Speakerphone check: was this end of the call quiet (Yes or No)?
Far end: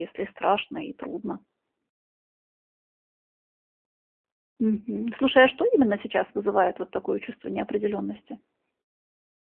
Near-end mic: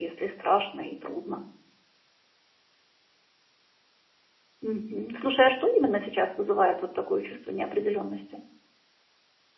Yes